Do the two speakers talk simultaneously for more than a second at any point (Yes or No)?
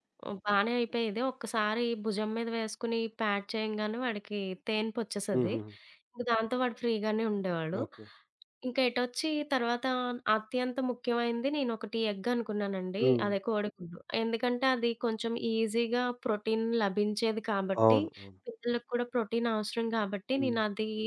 No